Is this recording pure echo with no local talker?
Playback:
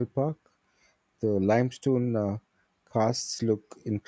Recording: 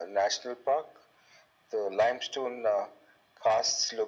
Yes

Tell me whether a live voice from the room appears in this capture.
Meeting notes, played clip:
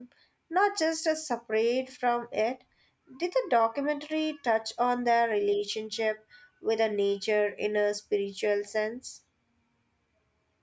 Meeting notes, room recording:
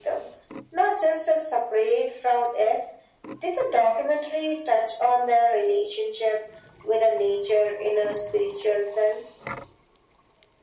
No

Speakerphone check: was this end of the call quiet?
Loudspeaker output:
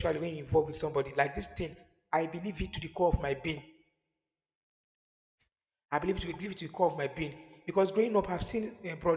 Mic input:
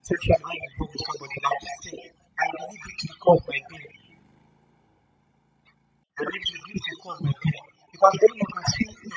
Yes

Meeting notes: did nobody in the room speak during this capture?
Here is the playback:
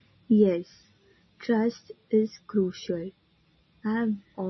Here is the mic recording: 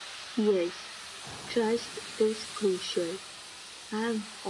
Yes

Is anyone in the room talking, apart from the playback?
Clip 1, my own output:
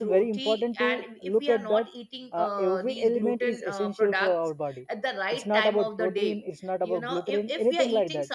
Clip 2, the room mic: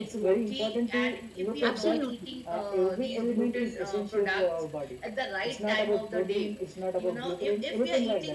Yes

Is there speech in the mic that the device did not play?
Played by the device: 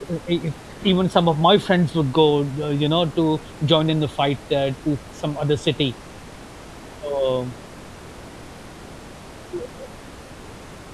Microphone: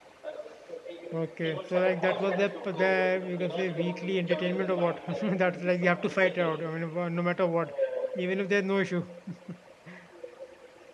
Yes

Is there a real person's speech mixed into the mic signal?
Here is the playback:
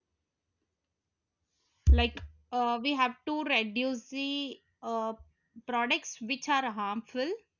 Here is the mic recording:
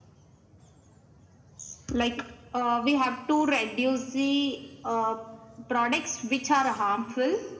No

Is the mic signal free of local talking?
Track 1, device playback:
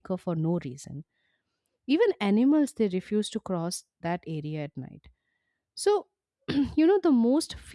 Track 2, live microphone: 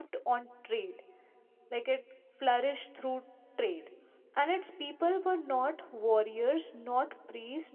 No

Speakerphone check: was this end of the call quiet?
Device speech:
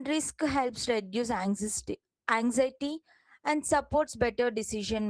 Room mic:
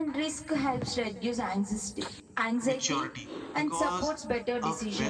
No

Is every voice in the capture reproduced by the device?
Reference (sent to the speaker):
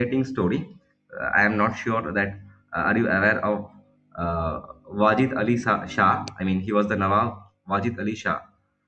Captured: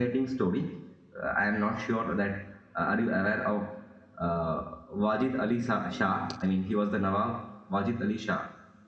Yes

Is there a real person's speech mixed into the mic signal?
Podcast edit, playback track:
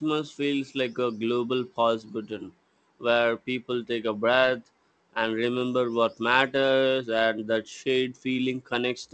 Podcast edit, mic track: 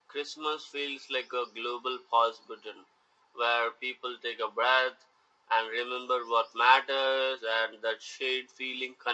No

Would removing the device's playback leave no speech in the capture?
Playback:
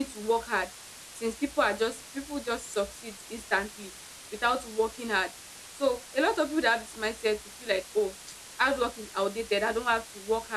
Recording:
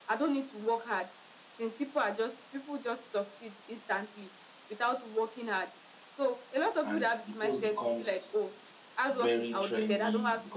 No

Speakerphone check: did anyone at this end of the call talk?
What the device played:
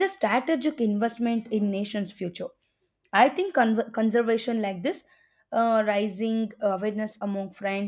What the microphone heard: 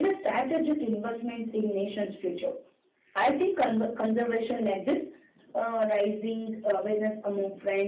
No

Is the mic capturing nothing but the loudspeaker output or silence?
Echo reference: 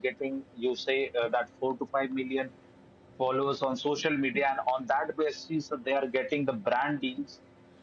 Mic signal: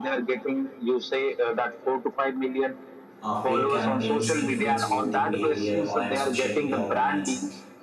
No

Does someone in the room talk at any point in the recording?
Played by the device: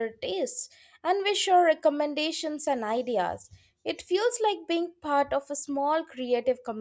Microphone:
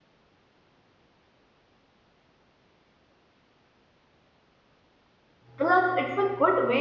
Yes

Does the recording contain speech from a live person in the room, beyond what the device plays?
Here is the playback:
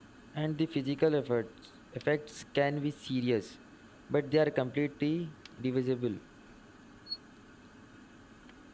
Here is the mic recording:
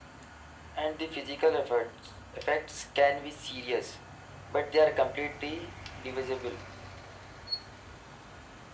No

